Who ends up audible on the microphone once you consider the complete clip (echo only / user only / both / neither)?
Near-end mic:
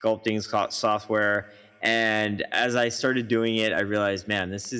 user only